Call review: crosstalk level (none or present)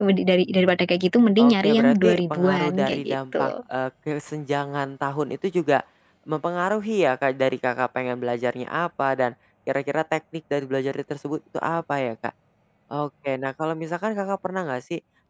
present